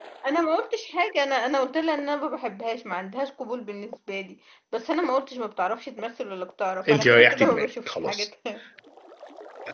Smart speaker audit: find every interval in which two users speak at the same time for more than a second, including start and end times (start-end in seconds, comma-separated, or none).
6.9-8.3